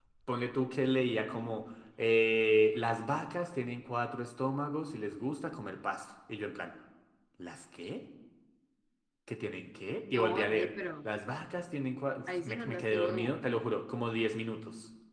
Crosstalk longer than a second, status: present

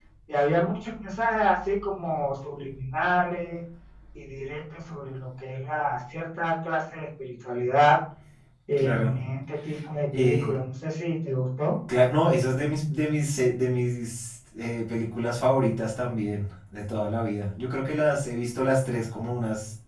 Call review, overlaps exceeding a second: none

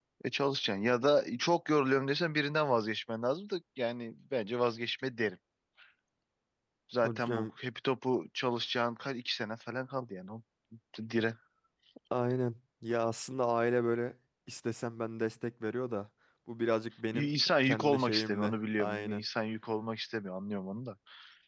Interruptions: present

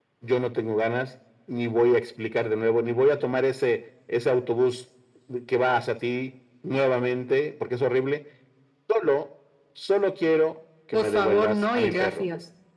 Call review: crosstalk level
present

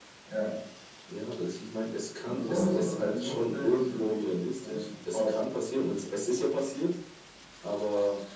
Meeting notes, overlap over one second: present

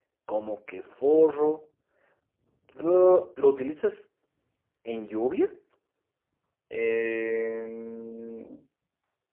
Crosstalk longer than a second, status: none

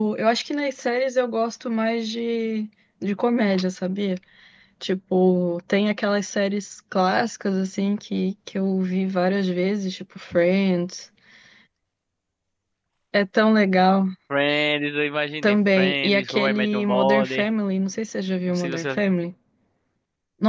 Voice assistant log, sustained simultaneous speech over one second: present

